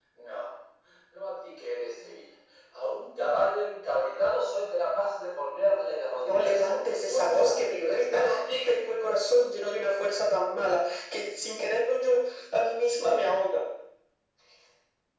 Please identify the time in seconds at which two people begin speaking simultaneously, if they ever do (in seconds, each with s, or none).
6.2 s